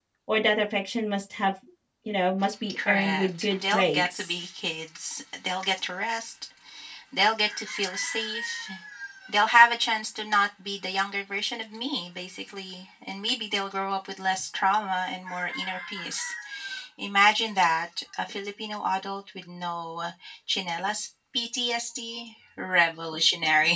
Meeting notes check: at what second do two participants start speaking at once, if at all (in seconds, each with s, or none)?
2.7 s